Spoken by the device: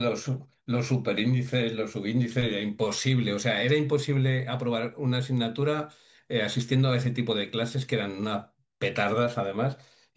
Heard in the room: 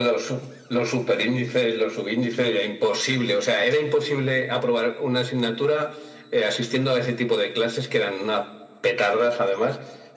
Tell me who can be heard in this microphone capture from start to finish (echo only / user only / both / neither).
echo only